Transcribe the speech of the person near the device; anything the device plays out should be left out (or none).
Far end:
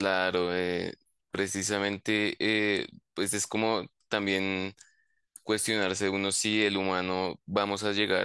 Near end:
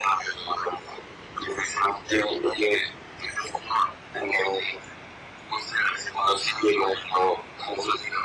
none